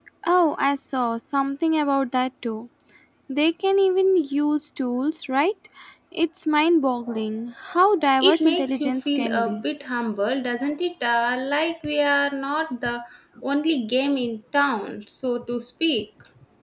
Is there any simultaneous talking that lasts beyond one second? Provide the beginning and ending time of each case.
8.2-9.6

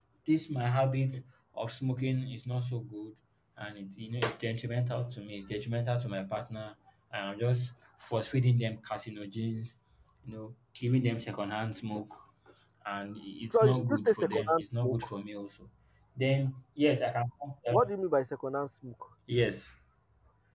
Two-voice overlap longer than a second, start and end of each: 13.5-15.1

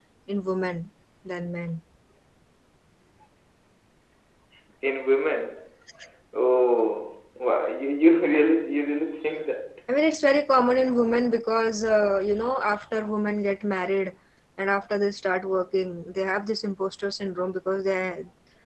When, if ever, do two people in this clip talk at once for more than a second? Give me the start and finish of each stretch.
none

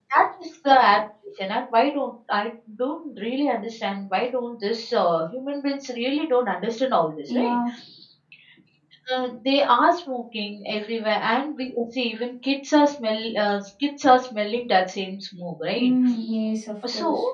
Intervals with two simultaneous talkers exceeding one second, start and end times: none

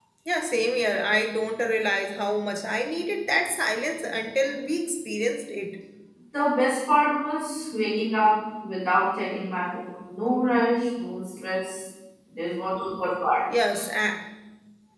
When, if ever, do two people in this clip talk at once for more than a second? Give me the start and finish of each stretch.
none

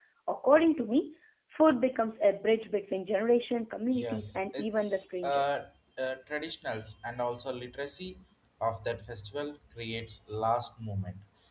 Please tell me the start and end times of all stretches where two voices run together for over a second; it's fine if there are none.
3.9-5.6

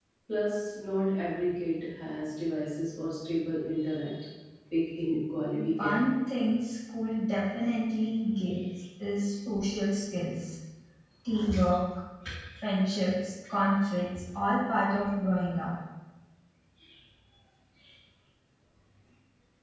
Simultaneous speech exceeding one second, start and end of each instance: none

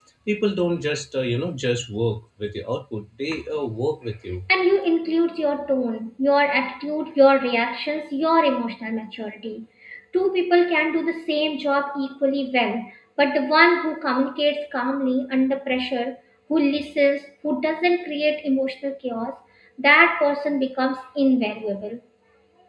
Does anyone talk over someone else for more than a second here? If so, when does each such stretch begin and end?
none

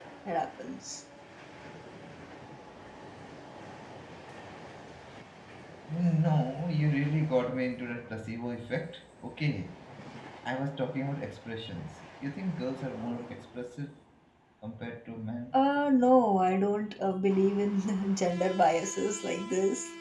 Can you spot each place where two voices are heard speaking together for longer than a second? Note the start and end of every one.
none

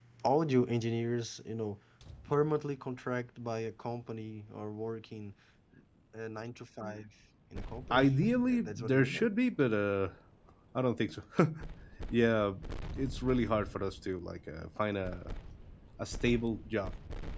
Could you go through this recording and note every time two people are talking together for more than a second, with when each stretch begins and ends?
7.9-9.3

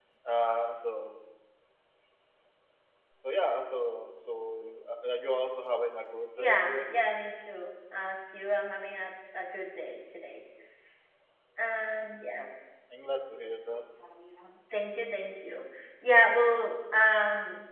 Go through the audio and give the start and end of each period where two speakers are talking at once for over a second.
none

